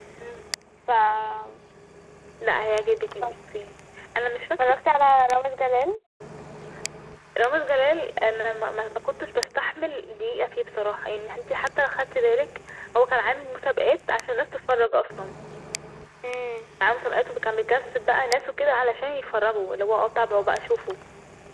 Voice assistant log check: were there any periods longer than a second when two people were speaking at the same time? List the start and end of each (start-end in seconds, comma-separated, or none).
none